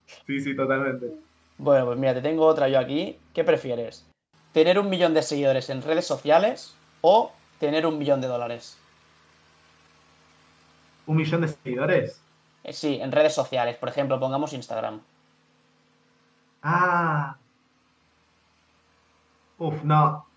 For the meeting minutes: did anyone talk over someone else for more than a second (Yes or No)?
No